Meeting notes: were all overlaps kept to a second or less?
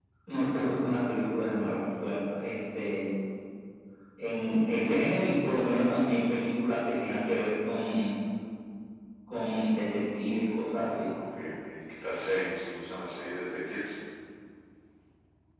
Yes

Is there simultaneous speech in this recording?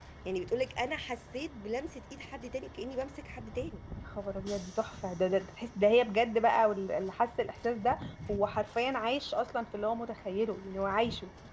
No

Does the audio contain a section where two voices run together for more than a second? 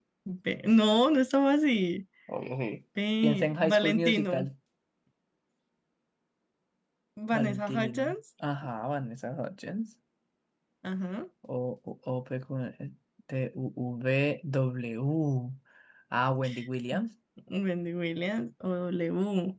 Yes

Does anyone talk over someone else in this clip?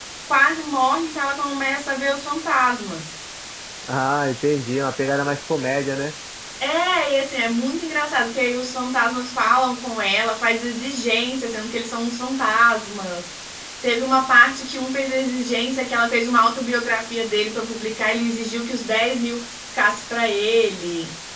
No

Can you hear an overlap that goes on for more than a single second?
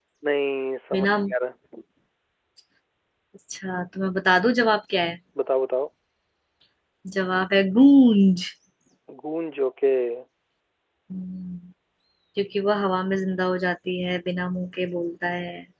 No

